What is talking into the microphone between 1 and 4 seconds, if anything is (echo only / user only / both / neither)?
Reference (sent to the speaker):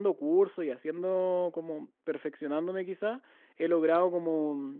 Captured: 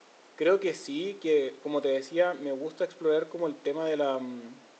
user only